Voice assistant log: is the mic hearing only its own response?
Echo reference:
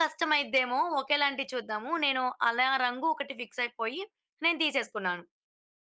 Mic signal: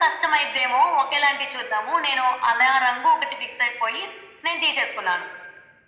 Yes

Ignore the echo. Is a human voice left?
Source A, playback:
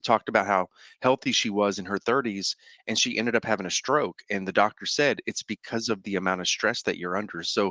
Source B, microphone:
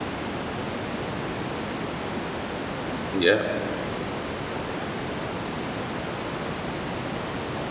Yes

